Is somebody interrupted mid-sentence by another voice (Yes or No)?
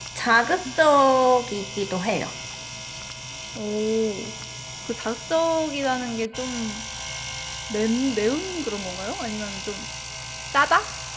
No